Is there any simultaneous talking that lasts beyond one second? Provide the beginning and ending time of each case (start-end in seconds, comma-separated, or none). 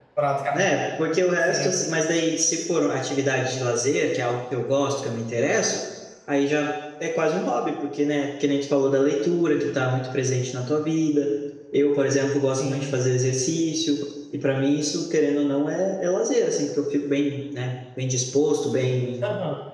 none